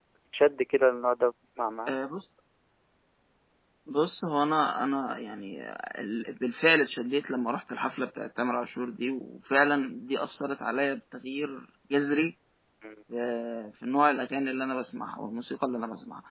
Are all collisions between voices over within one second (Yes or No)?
Yes